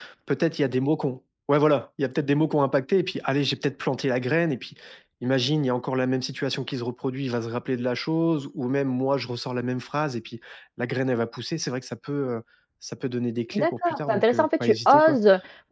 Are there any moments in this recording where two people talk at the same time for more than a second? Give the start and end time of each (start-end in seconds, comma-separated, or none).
13.5-15.2